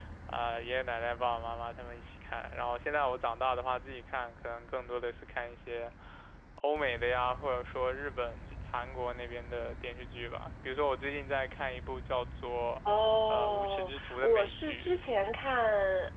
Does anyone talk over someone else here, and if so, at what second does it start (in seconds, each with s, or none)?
13.3 s